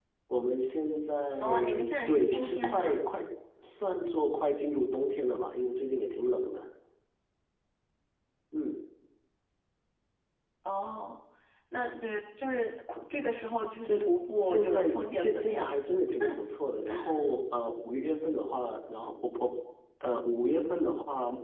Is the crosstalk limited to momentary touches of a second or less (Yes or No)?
No